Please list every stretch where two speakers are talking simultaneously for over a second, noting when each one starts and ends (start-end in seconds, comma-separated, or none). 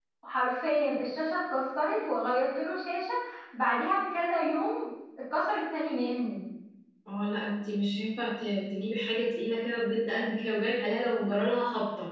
none